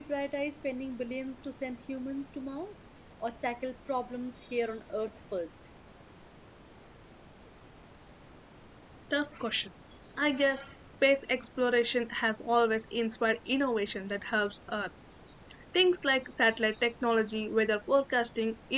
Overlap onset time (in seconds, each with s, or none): none